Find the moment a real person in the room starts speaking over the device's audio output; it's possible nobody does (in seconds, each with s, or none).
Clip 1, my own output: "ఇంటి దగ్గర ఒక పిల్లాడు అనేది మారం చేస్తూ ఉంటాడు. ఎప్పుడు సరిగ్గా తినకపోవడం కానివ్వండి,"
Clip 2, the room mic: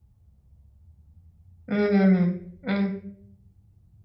1.7 s